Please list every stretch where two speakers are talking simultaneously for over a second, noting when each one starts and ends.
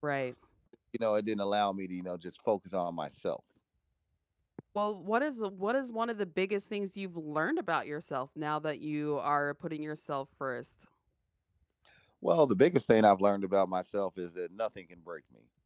none

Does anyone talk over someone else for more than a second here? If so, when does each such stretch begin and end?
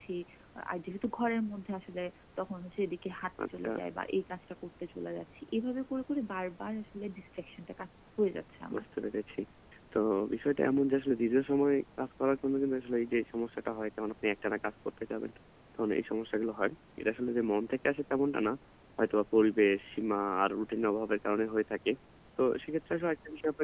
none

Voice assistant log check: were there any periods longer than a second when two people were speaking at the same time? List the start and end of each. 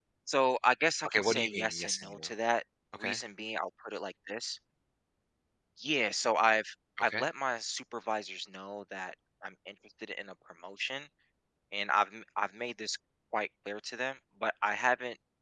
1.1-2.3

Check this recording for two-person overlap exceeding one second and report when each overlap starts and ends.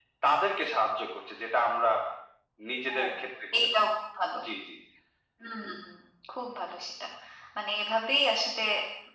none

